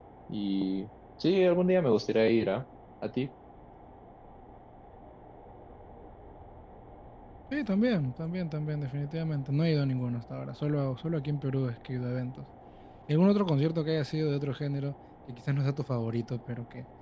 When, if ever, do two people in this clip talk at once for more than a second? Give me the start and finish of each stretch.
none

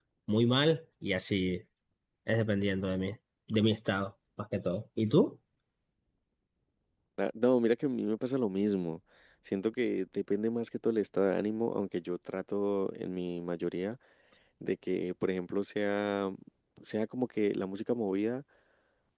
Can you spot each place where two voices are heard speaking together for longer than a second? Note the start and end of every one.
none

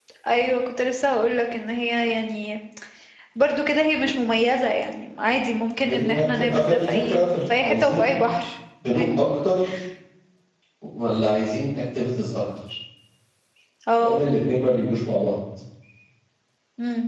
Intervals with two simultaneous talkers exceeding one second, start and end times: 5.8-8.1

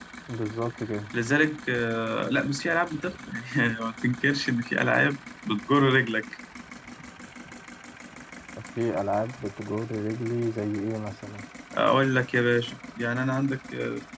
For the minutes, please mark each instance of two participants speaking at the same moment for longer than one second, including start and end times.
none

